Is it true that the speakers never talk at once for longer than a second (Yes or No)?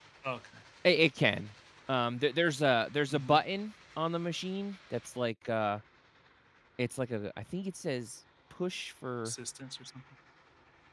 Yes